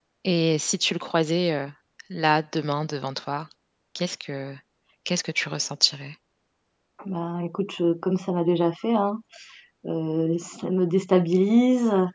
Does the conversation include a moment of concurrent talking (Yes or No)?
No